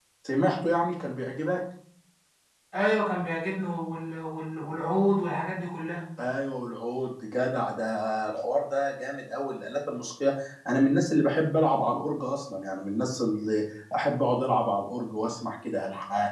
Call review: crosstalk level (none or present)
none